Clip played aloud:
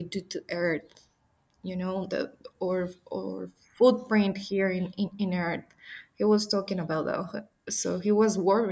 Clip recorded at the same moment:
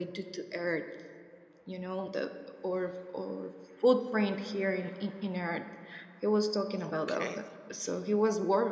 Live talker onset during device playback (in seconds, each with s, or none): 6.8 s